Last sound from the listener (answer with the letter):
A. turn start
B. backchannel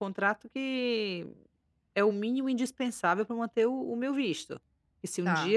B